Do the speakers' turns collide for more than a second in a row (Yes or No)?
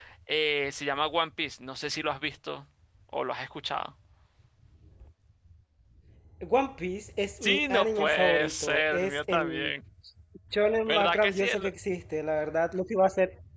Yes